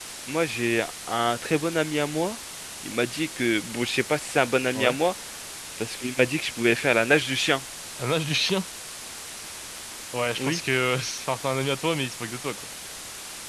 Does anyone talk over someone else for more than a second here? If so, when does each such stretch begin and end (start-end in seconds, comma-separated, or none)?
none